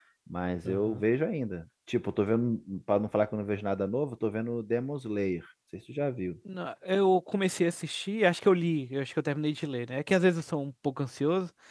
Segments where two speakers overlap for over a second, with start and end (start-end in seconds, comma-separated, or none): none